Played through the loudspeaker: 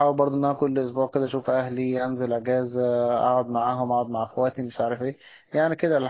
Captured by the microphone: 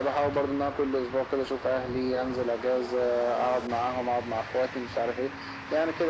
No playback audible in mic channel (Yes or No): No